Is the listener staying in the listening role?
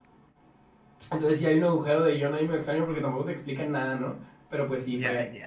Yes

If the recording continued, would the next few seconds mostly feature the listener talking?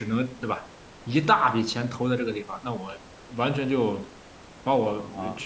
No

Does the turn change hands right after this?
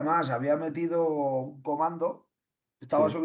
No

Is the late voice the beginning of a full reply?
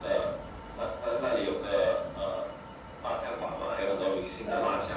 No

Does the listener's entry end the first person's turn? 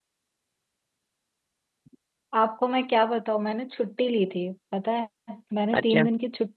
No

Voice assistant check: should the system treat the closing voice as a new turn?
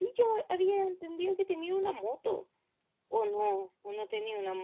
Yes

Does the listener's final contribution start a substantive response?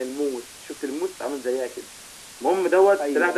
No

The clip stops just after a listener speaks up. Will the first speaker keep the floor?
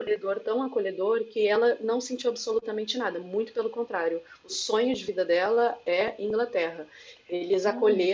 Yes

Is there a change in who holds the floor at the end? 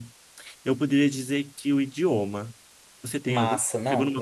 Yes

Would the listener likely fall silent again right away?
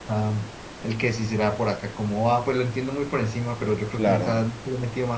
Yes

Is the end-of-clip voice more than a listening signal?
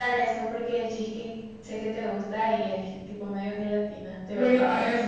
Yes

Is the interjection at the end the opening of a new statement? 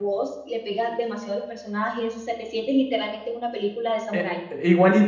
Yes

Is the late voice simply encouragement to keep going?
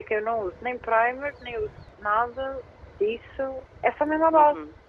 No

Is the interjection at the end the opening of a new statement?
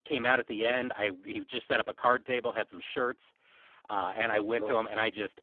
No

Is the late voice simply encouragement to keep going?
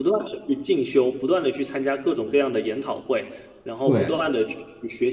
Yes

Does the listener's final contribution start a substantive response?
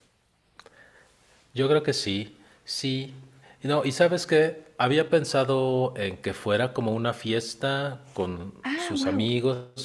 No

